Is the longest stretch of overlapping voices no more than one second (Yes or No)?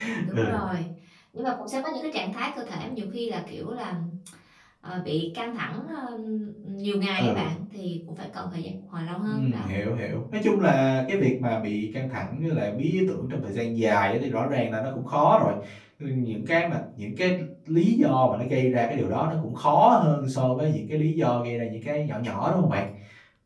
Yes